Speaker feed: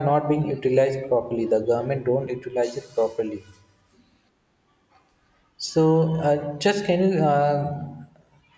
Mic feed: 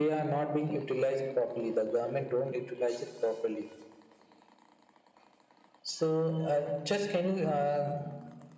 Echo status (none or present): present